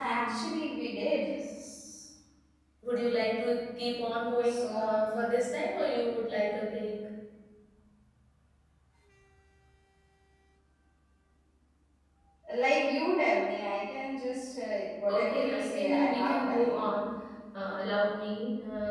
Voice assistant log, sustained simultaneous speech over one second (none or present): present